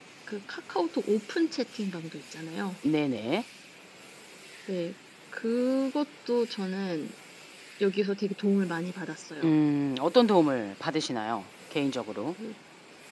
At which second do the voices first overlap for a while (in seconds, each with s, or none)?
none